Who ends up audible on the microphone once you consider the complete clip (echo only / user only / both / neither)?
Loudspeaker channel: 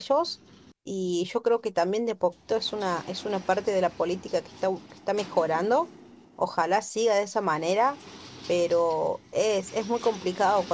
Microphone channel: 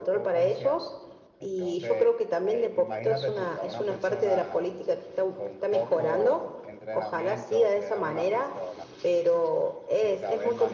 both